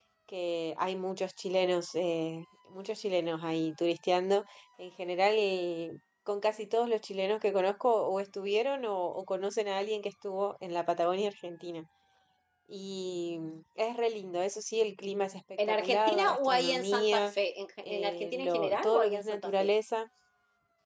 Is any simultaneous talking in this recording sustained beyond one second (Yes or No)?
Yes